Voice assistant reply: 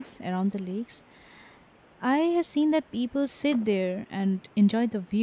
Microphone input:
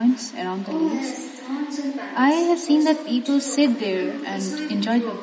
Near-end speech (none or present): present